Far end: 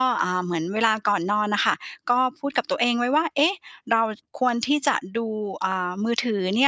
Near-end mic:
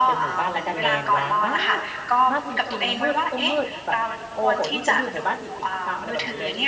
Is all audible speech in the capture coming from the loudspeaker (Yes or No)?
No